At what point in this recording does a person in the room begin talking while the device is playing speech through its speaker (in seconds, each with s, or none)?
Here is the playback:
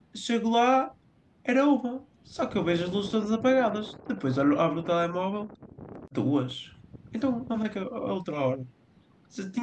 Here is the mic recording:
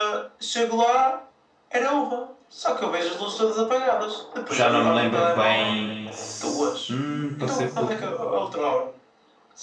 4.5 s